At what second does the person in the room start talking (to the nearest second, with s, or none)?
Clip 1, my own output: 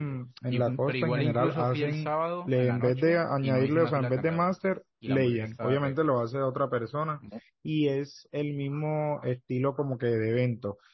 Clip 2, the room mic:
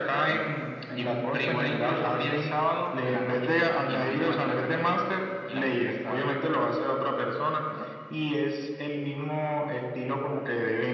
none